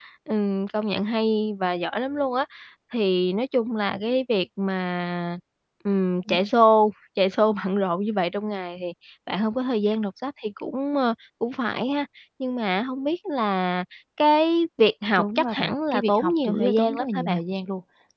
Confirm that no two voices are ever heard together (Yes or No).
No